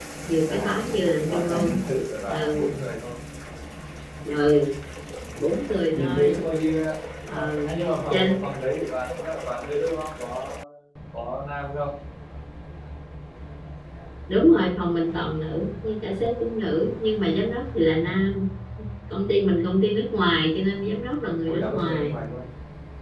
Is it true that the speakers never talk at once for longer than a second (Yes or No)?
No